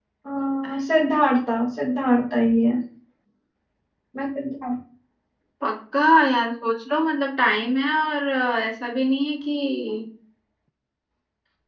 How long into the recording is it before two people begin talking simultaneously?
none

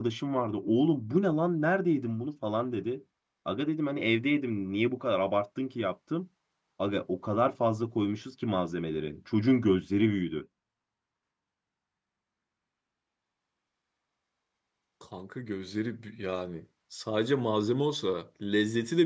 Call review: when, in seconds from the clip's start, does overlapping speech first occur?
none

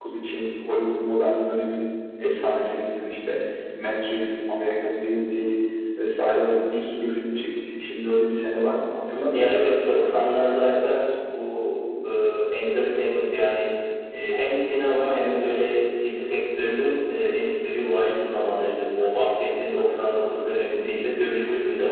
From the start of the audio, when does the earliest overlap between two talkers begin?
9.3 s

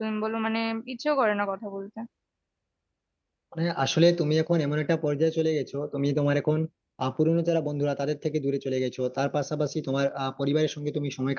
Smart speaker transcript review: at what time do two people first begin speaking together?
none

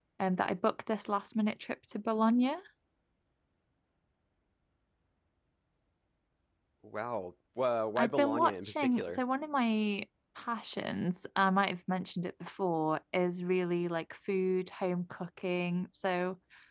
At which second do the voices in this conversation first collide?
8.0 s

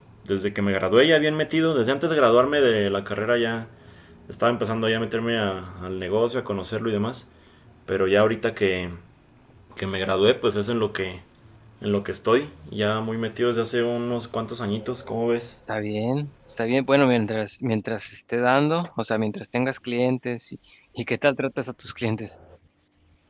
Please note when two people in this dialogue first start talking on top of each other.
none

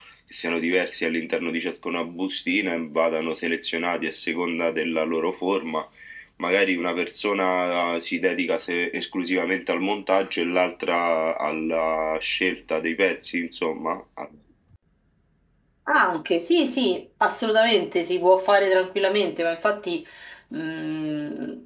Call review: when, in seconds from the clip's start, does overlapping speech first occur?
none

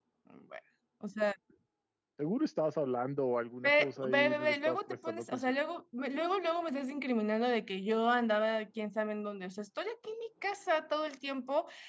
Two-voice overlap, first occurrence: 3.6 s

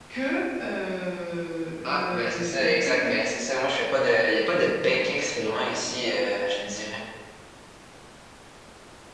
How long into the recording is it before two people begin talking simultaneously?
1.8 s

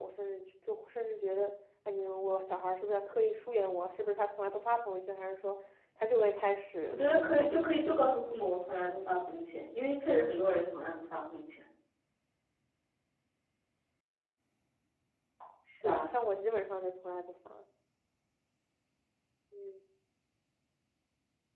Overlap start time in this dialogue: 6.9 s

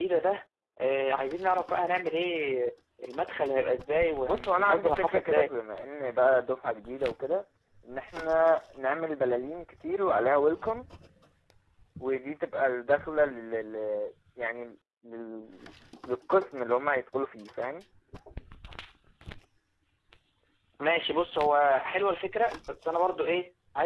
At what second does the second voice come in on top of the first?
4.2 s

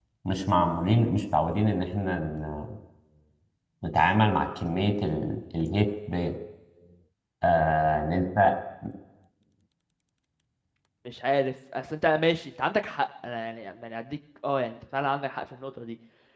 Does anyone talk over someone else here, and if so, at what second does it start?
none

